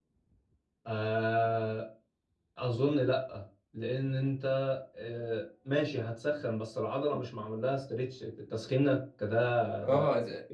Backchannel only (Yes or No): No